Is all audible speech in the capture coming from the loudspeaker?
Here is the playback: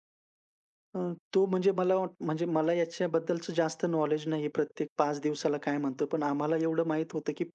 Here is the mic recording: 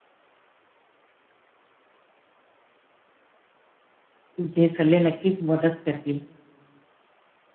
No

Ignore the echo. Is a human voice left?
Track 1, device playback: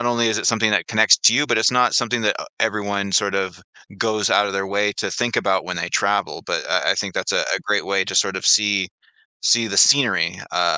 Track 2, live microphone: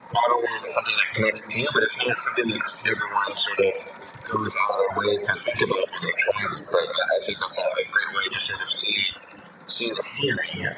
No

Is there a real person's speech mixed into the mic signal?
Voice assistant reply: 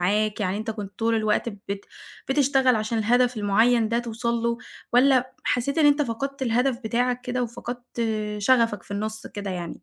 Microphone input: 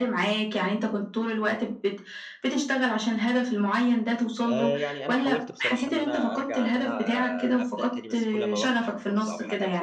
Yes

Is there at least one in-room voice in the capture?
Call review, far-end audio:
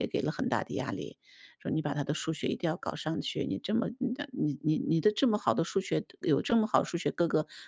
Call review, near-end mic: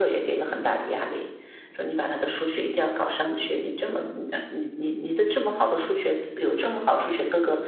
No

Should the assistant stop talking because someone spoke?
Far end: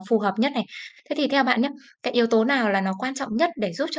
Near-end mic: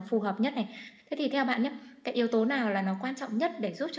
No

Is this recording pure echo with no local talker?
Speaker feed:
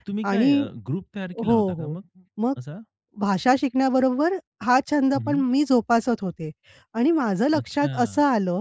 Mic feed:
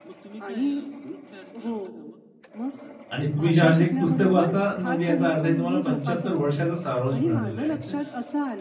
No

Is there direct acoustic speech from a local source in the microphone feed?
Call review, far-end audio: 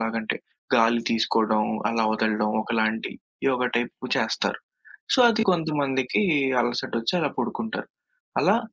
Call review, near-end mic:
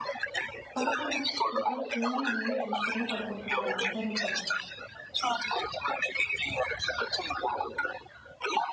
Yes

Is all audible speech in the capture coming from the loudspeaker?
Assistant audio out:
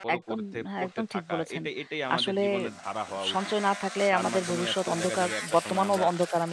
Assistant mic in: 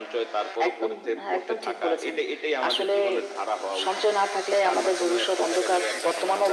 Yes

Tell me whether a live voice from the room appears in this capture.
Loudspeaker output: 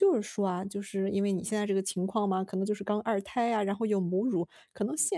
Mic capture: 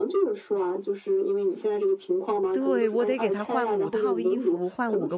Yes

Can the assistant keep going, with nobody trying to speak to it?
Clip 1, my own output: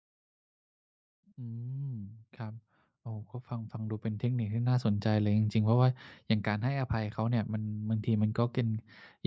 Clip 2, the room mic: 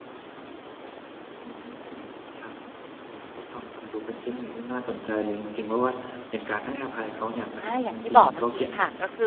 No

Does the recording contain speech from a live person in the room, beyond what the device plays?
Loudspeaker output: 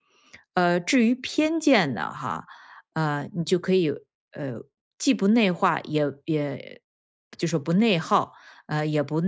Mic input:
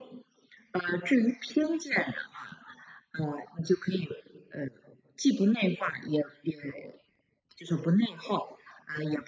No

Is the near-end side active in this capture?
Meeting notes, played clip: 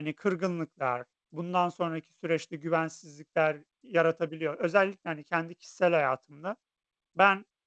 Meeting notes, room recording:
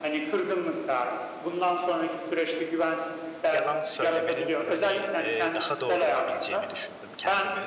Yes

